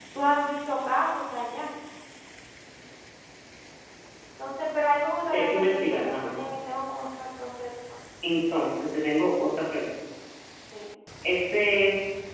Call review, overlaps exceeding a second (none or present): present